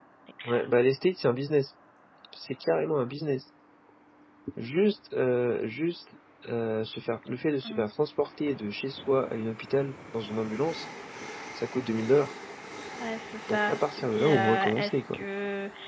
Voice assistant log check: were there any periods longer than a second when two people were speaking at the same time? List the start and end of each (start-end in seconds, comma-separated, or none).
13.5-15.2